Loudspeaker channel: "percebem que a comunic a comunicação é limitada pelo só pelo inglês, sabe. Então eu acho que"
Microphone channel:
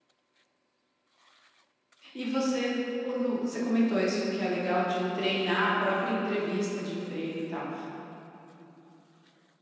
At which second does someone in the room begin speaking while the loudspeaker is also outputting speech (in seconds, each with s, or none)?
2.1 s